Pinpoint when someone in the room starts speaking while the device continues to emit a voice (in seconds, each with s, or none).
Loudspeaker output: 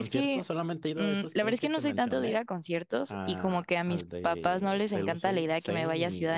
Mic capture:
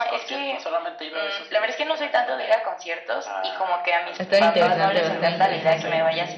4.2 s